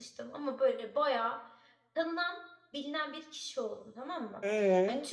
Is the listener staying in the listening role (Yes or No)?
Yes